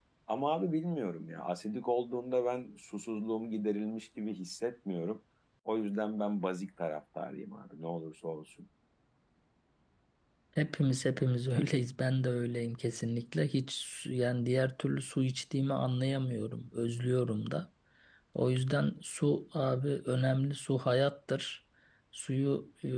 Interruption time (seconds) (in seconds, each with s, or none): none